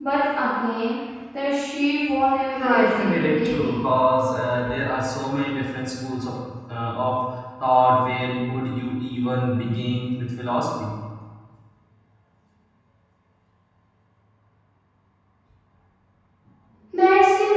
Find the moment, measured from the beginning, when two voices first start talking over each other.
2.5 s

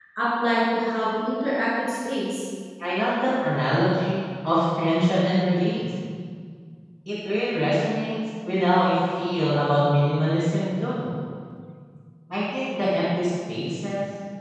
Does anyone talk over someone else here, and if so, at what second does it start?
none

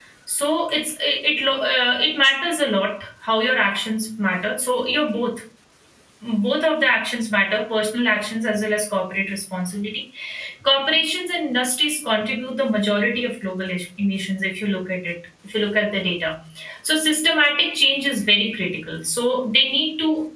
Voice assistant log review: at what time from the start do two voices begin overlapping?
none

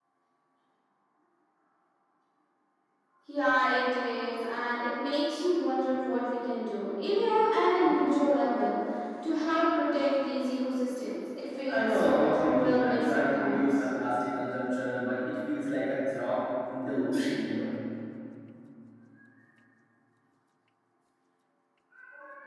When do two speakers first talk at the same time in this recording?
11.7 s

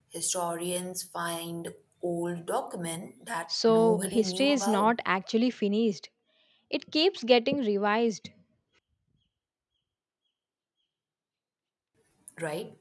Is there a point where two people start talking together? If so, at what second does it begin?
3.5 s

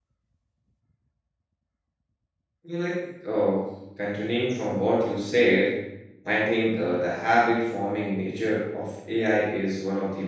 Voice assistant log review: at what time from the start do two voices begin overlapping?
none

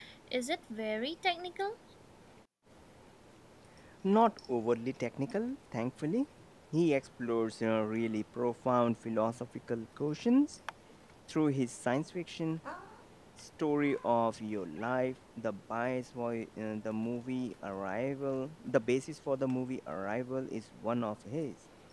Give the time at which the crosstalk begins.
none

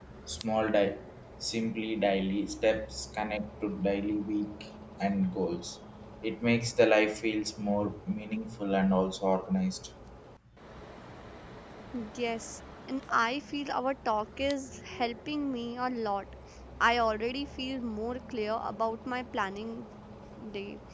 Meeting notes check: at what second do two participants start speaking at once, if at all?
none

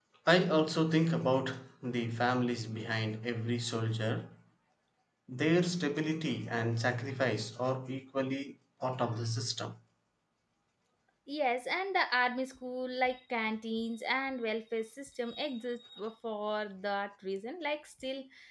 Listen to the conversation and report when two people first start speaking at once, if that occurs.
none

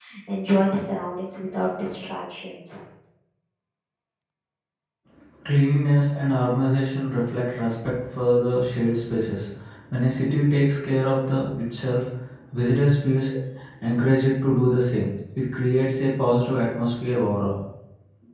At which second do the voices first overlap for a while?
none

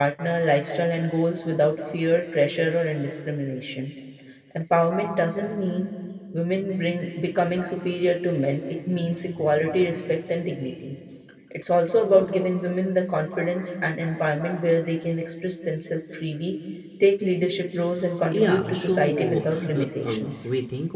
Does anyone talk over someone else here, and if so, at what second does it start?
18.3 s

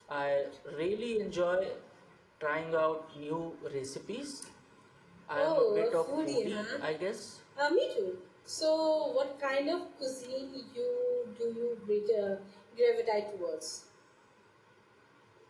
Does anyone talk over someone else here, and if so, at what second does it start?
5.4 s

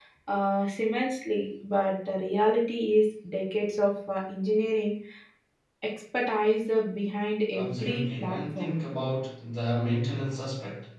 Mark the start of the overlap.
7.5 s

